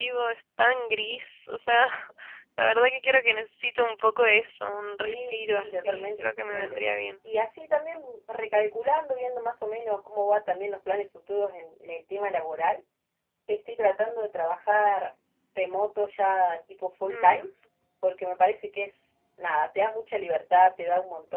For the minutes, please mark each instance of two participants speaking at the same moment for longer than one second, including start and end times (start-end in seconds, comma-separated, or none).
5.0-6.8